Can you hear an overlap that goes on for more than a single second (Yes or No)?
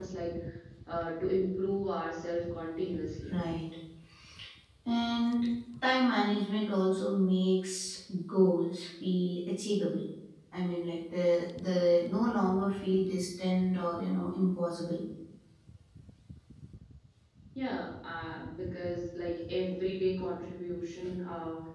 No